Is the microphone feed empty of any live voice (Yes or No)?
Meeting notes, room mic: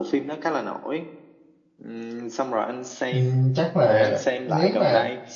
No